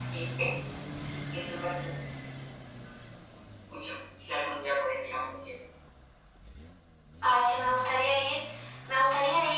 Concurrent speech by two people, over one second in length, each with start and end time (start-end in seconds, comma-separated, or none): none